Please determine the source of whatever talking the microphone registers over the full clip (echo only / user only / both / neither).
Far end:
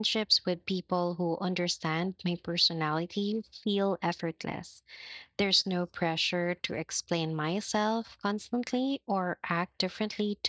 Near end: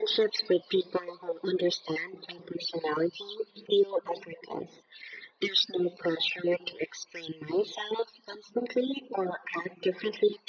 echo only